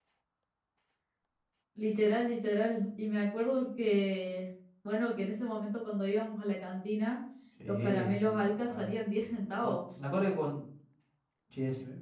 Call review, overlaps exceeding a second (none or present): present